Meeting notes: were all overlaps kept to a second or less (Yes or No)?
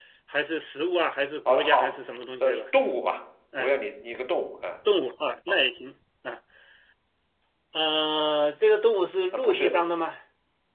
Yes